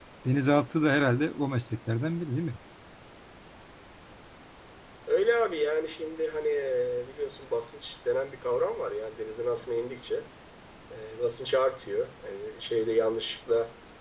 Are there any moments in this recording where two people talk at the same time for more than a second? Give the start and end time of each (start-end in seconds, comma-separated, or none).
none